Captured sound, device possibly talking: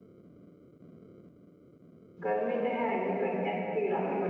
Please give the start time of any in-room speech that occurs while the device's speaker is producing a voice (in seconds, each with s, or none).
2.2 s